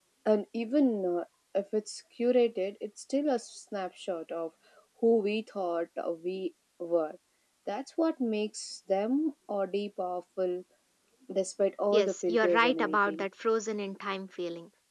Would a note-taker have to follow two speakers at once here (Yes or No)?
Yes